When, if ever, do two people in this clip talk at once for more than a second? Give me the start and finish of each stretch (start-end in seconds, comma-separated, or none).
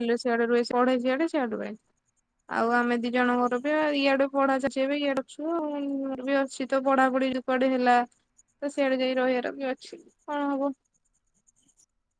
none